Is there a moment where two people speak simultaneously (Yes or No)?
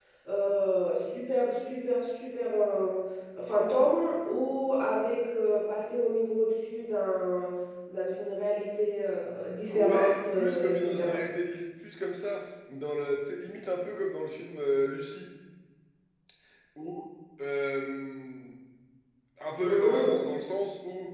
Yes